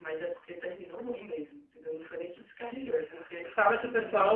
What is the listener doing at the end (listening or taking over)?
taking over